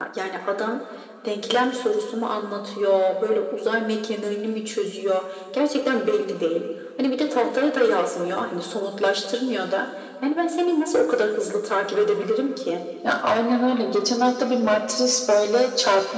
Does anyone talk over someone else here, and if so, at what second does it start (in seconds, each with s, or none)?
none